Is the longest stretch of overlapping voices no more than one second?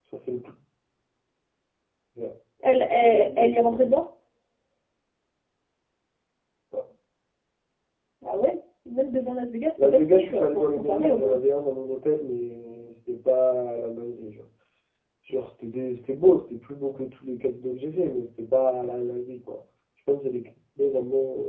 No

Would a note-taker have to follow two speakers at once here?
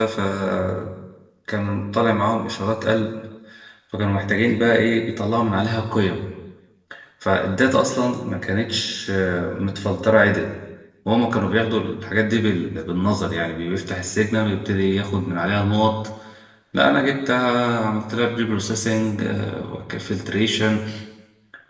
No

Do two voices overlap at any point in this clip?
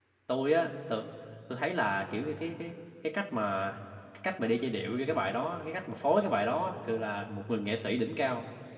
No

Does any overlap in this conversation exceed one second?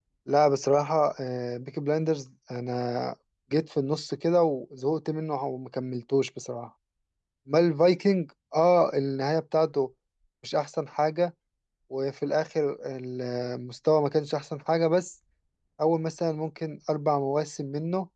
No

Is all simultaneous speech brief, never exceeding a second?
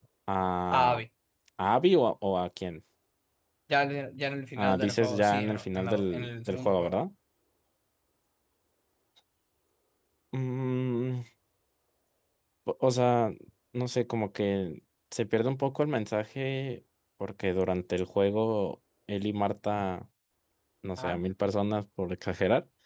No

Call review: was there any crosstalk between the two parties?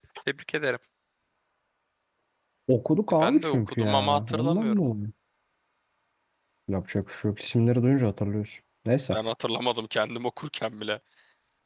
Yes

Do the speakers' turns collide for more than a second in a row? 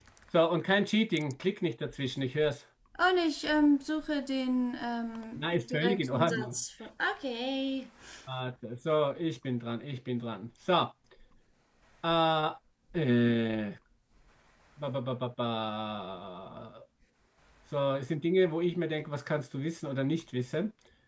Yes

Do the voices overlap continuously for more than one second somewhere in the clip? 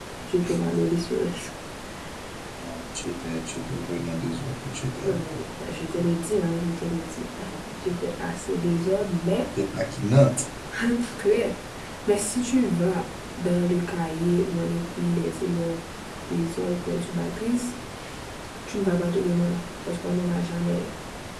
No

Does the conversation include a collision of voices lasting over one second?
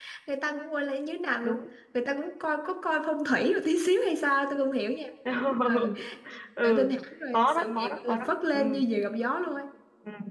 Yes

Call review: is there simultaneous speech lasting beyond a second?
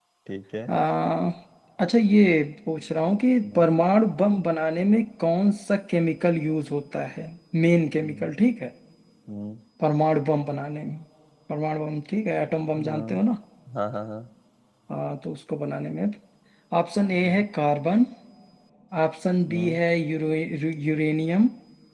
No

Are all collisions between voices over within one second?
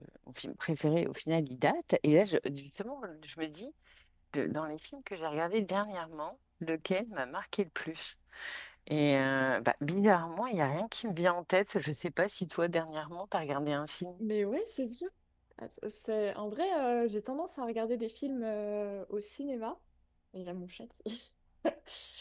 Yes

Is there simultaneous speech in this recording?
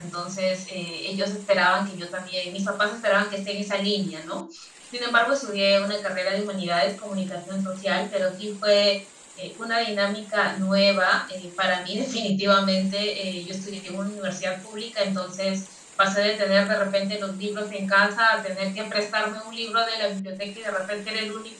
No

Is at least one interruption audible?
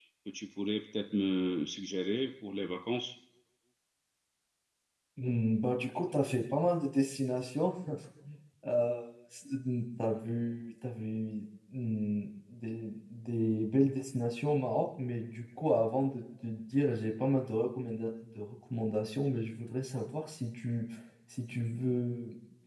No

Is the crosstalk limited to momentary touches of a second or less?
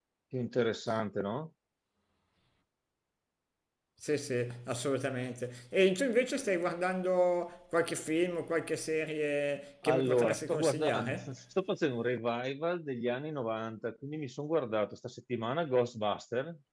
No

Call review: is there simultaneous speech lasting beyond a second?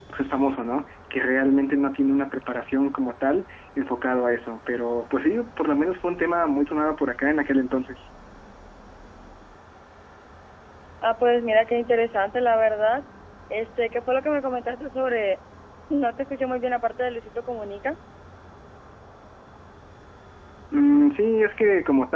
No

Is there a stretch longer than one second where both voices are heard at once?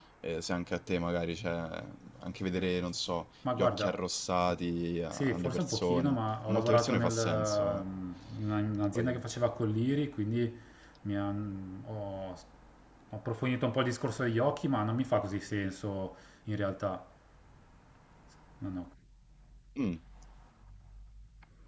Yes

